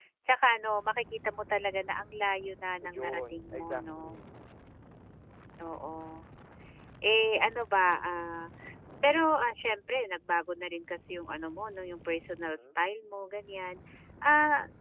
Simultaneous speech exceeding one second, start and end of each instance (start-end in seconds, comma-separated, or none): 2.8-4.2